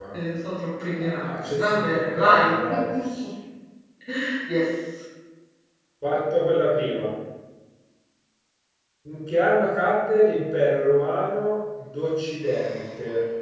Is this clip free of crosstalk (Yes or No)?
No